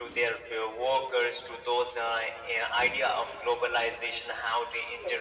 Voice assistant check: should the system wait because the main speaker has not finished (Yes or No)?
Yes